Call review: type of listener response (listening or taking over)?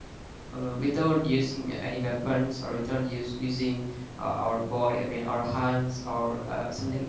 listening